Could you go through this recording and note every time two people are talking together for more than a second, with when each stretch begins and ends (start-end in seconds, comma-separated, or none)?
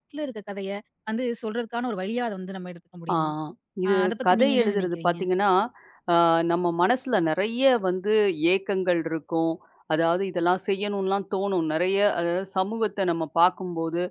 3.9-5.2